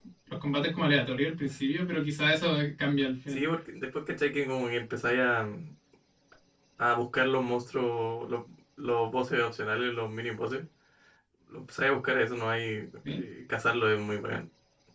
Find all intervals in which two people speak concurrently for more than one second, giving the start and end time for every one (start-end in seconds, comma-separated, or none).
none